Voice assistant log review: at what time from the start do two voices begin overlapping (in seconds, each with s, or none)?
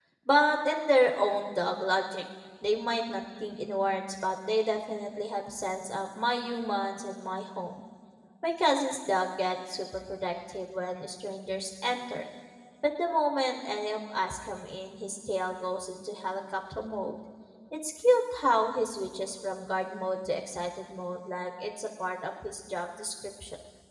none